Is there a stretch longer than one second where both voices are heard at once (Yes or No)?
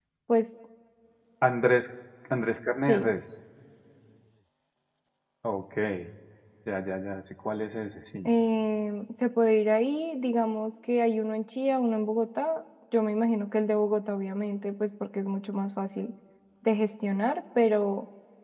No